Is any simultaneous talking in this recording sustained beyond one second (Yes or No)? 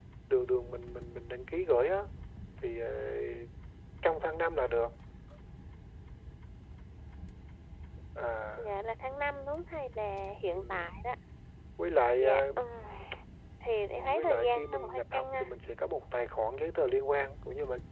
Yes